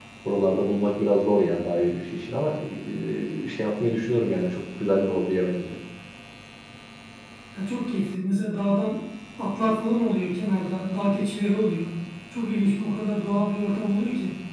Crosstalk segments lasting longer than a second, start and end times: none

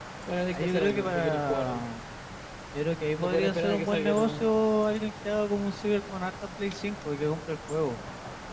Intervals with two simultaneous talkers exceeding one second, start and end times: 0.5-1.8, 3.2-4.4

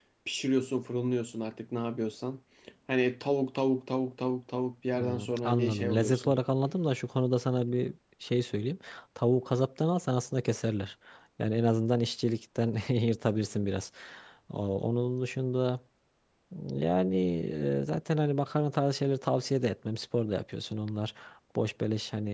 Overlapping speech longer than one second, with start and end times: 4.9-6.3

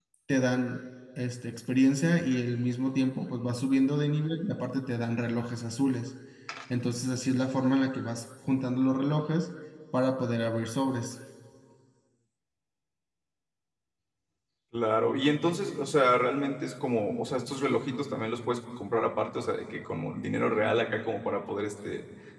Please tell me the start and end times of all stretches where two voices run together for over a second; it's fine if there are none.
none

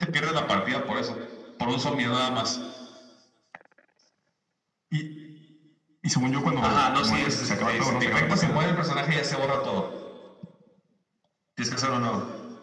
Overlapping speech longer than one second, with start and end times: 6.6-8.6

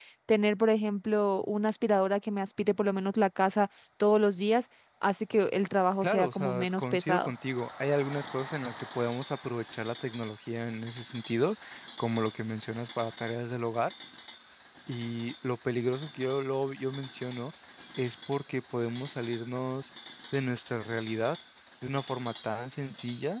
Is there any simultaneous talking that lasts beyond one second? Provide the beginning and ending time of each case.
6.0-7.3

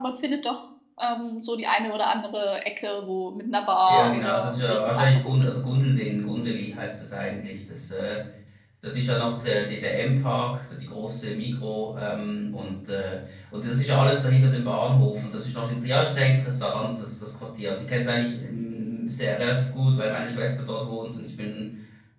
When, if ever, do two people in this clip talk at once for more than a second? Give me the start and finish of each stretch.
3.9-5.4

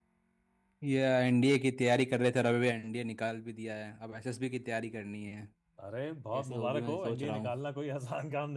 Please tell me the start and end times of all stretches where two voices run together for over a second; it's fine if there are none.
6.3-7.5

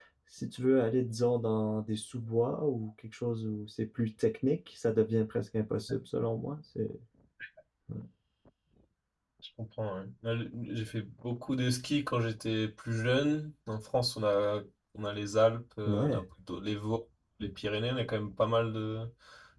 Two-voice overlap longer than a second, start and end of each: none

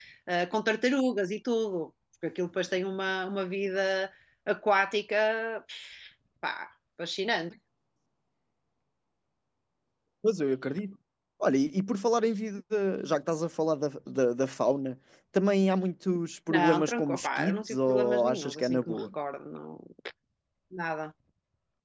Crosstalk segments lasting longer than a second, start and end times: 16.5-19.0

